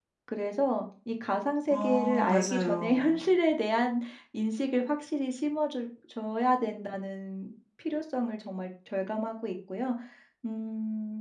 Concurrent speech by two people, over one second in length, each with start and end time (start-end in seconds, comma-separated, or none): 1.7-3.2